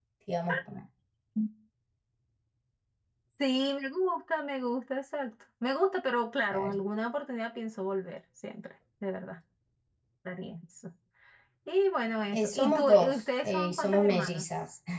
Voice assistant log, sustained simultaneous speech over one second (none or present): present